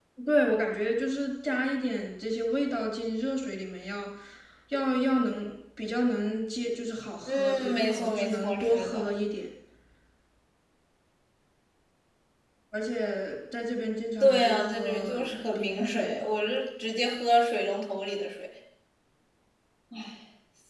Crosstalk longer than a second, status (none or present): present